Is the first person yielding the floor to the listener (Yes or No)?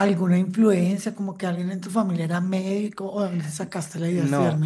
Yes